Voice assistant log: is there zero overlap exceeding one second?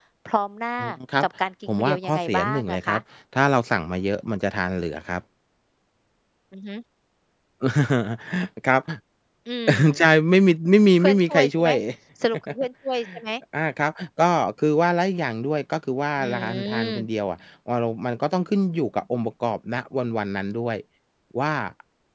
No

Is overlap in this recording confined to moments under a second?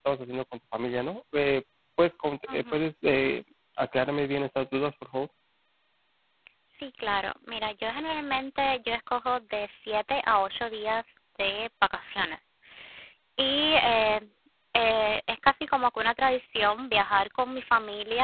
Yes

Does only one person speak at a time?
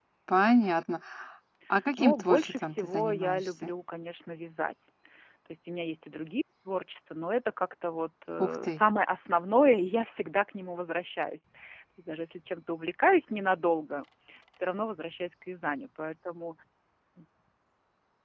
No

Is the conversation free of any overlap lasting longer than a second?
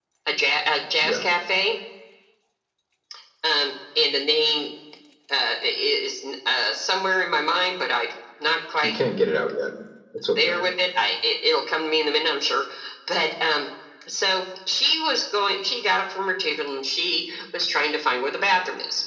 Yes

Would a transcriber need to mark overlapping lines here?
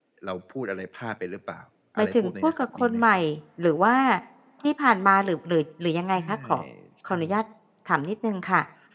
Yes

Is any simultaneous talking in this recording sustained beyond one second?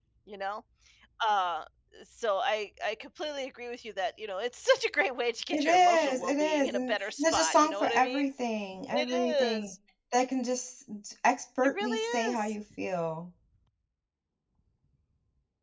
Yes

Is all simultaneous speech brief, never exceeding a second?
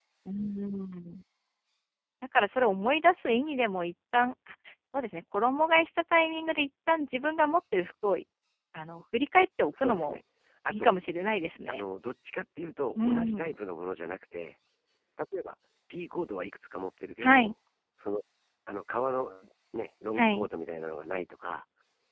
Yes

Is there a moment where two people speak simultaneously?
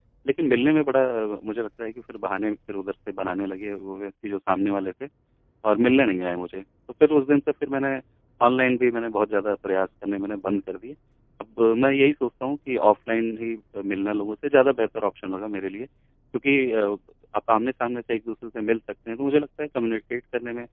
No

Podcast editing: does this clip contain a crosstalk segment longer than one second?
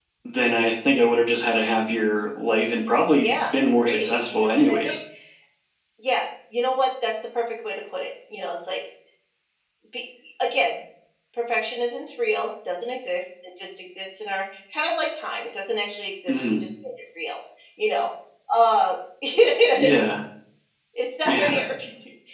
Yes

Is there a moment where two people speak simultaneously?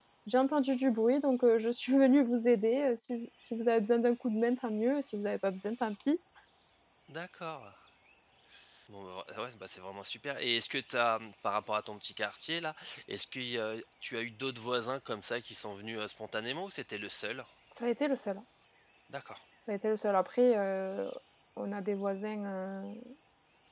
No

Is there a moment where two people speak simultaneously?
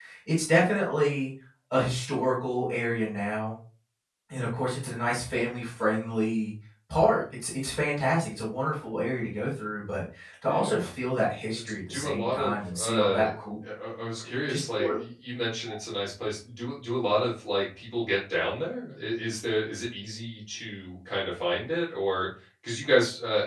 Yes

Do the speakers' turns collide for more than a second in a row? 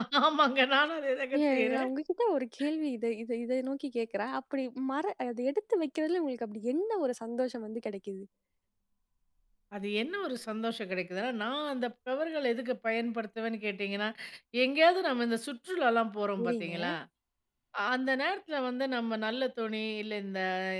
No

